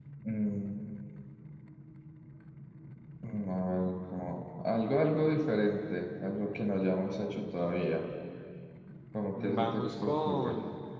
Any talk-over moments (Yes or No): Yes